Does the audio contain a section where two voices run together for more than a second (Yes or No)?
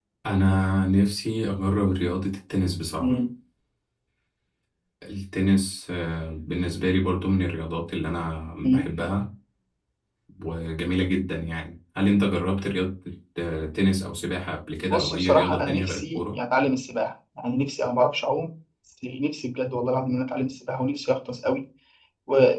Yes